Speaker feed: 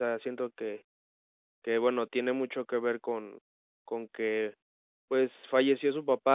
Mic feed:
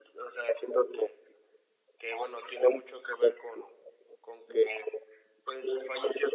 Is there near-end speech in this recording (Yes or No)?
No